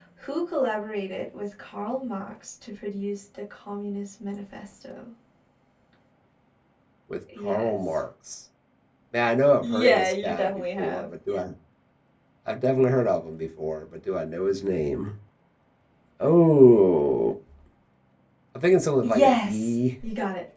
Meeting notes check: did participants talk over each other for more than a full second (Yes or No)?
Yes